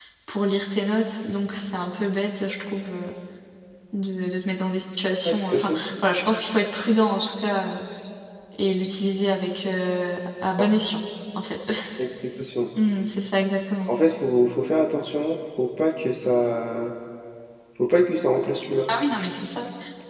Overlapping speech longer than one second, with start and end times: none

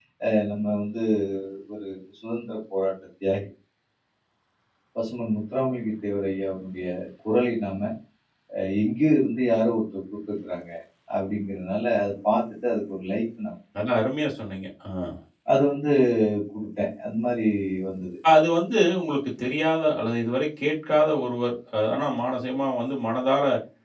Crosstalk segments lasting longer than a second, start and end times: none

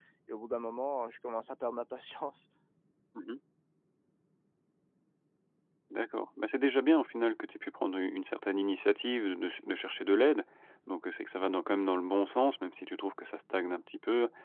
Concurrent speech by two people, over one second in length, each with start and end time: none

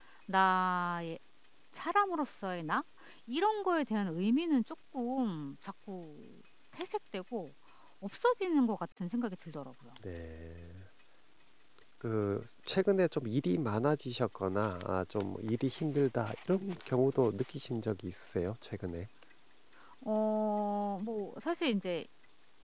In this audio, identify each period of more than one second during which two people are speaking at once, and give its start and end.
none

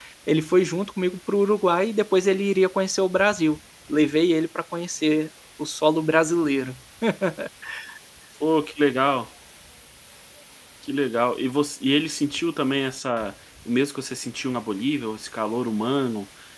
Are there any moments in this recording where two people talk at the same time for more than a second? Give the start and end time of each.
none

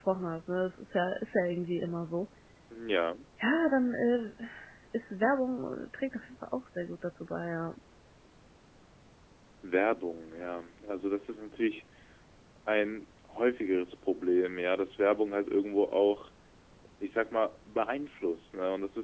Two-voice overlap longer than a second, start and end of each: none

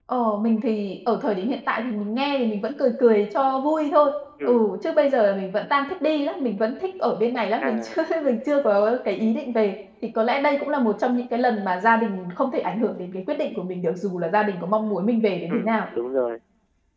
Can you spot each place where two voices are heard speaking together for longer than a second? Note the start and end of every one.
none

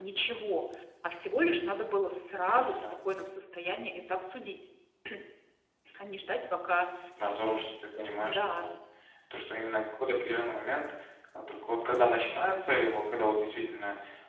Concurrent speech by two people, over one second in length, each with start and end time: none

